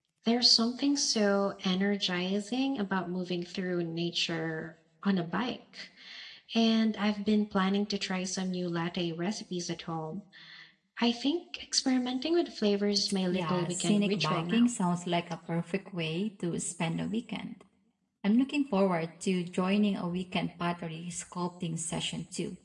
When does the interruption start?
13.3 s

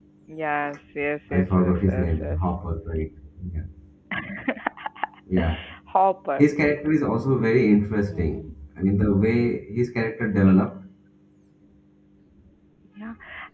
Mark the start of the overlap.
1.3 s

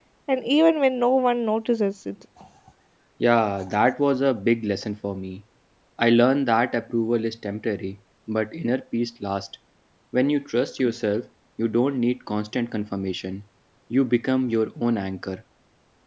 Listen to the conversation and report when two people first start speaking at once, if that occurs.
none

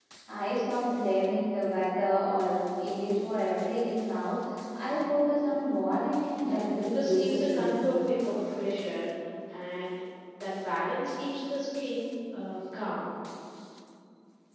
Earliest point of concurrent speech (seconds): 6.4 s

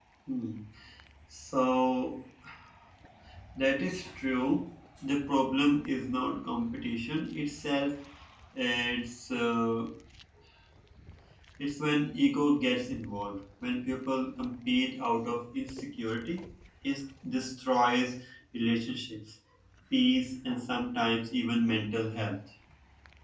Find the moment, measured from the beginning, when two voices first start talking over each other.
none

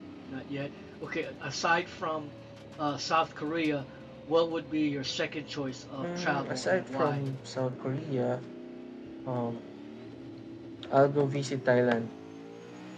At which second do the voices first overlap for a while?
6.0 s

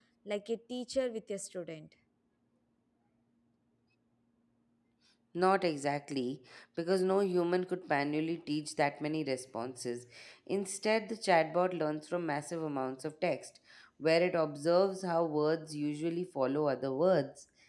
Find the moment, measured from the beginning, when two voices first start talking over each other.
none

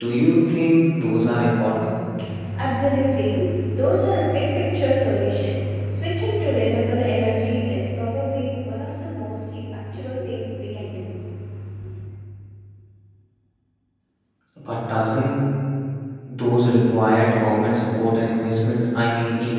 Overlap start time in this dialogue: none

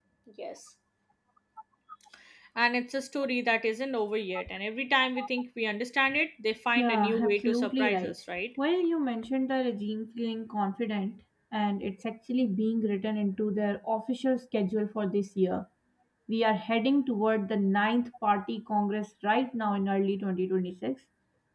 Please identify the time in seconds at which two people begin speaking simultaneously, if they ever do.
6.8 s

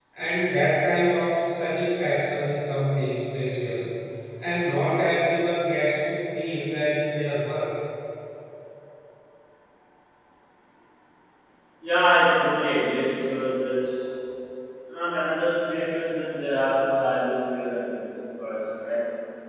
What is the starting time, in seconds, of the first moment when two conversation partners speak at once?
none

